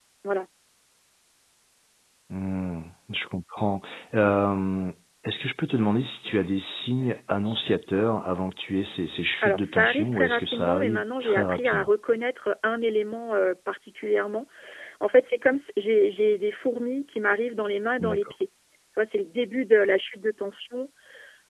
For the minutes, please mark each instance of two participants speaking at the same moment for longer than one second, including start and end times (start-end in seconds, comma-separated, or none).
9.4-11.9